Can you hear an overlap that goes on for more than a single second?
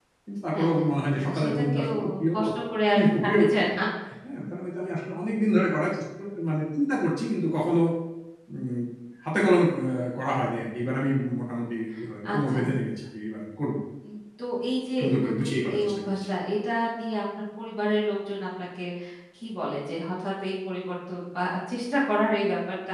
Yes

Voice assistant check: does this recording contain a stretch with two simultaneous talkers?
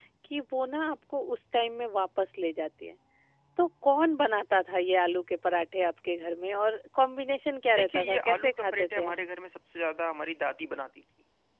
Yes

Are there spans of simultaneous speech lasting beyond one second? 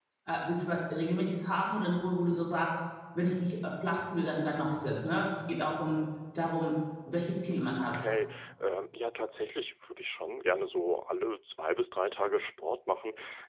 No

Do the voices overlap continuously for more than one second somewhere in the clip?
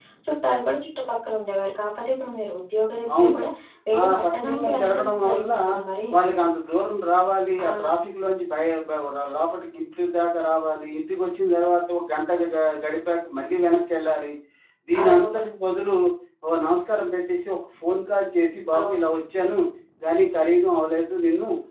Yes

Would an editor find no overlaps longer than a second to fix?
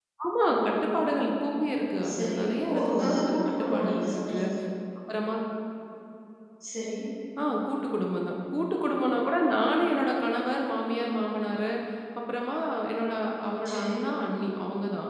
No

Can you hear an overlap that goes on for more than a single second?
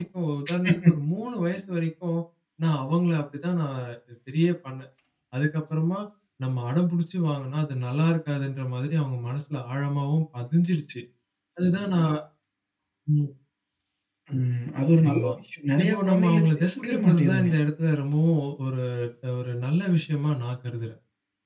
Yes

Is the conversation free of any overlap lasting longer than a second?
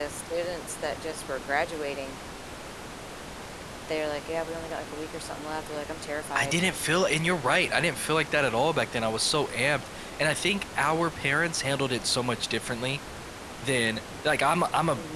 Yes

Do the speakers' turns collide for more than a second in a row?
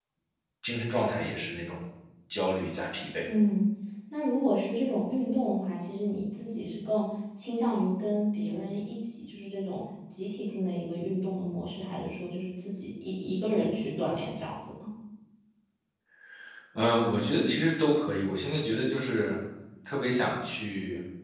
No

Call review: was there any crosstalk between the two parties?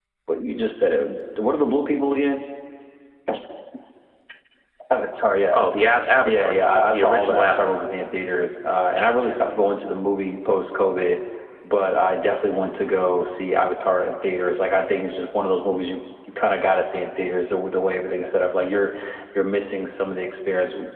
Yes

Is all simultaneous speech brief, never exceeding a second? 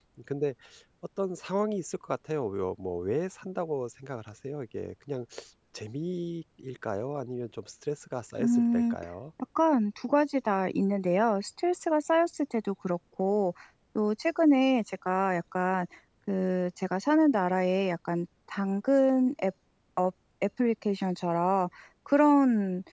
Yes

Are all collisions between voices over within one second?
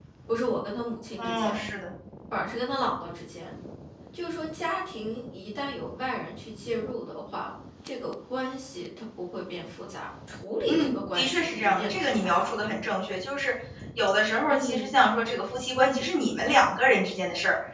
No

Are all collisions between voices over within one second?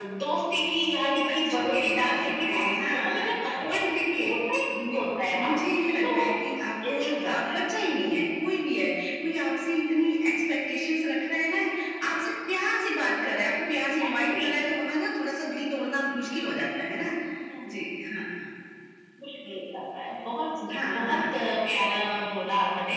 No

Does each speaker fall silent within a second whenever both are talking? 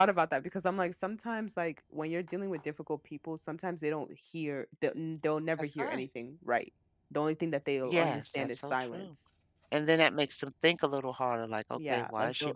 No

